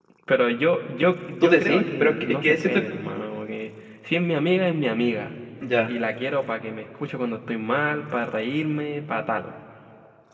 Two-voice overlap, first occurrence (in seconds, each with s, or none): 1.4 s